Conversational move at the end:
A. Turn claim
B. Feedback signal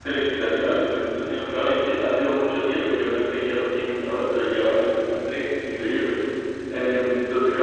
B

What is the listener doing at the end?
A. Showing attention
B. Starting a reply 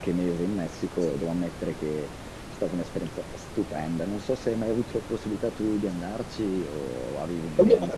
B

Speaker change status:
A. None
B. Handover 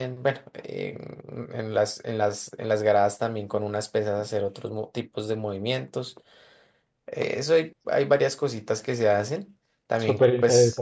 B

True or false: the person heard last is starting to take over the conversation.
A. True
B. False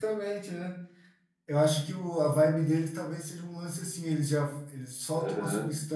B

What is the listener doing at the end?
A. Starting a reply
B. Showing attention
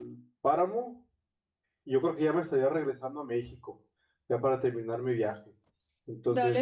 A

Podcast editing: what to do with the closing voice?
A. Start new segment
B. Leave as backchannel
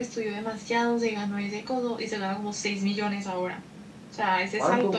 B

